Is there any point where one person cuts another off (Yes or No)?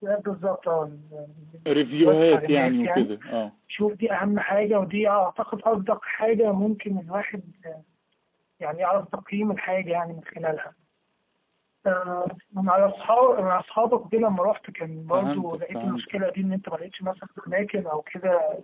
Yes